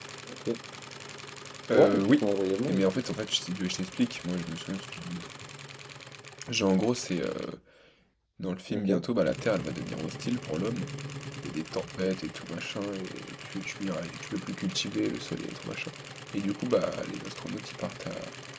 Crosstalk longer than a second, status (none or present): none